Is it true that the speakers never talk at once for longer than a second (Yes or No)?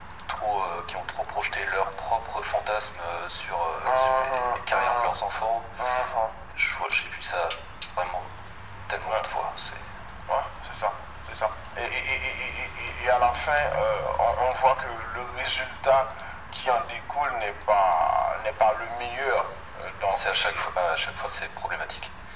No